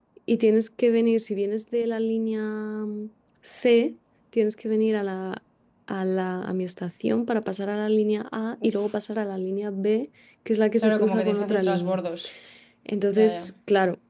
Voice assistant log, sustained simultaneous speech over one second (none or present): present